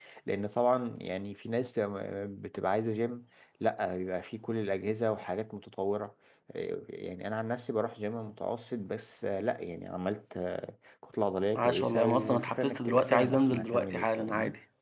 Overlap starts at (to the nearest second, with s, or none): 12 s